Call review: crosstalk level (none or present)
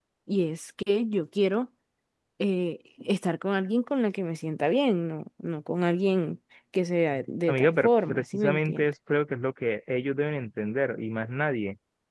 present